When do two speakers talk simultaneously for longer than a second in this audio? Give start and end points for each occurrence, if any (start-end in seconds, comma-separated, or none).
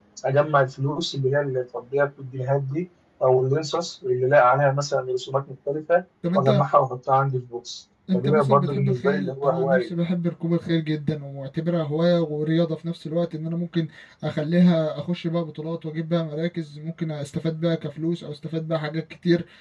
8.1-9.9